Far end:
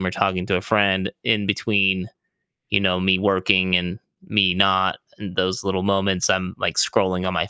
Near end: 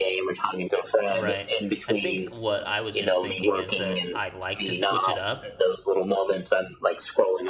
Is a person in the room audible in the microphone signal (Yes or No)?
Yes